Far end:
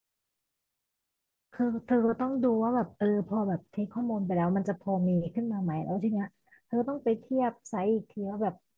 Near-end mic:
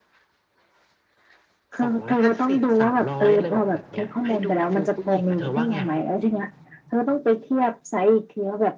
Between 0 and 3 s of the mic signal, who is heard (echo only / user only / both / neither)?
both